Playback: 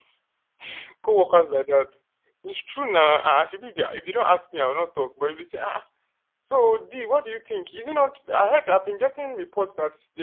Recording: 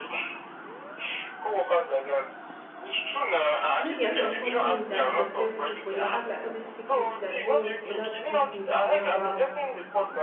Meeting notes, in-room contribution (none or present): present